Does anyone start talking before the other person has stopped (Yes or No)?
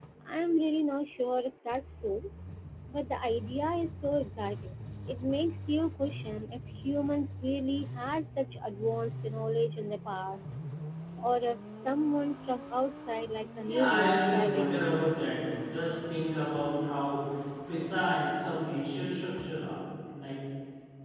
Yes